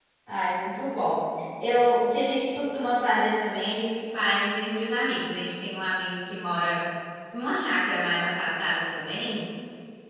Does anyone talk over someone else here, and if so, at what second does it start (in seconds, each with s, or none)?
none